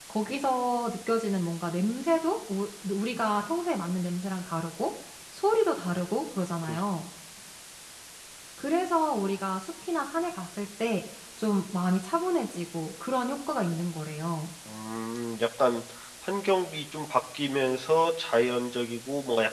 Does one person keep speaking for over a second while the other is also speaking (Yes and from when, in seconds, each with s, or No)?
No